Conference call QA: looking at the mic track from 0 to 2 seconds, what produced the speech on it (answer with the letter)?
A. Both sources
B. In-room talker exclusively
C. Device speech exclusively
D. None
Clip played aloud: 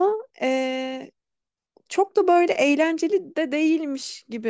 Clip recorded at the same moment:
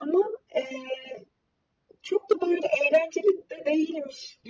C